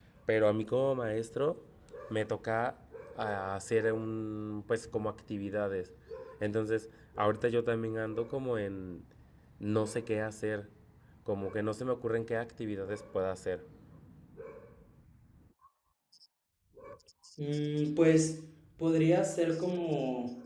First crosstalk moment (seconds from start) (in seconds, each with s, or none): none